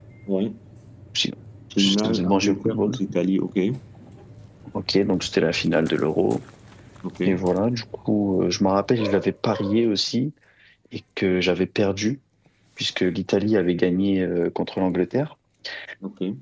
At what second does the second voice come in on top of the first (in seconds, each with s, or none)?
1.8 s